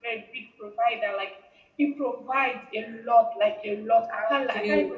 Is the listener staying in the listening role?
Yes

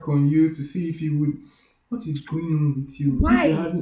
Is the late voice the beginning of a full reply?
No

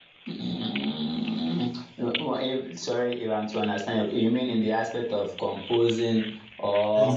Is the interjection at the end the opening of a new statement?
Yes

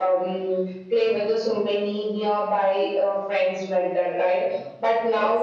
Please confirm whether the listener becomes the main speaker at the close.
No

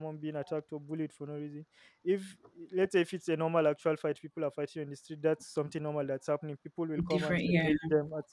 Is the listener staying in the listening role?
Yes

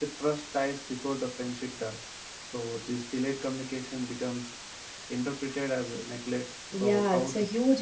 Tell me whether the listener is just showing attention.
No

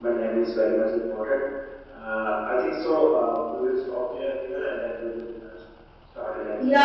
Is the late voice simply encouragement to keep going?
No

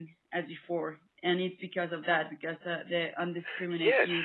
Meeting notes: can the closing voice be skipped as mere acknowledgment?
No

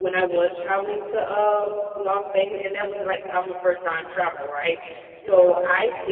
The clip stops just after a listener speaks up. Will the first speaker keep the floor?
Yes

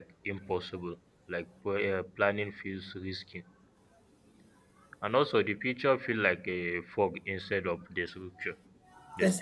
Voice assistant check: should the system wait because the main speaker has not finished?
No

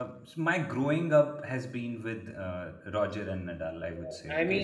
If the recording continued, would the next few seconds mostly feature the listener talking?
Yes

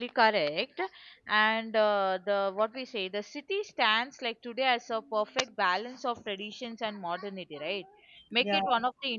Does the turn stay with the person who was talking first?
Yes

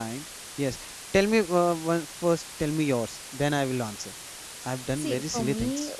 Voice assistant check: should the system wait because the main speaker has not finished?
No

